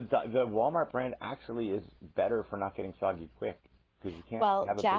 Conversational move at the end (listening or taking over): taking over